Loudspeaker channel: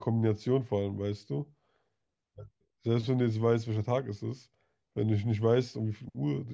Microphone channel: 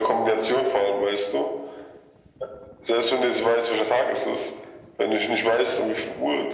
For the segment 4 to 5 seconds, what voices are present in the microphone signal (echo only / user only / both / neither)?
echo only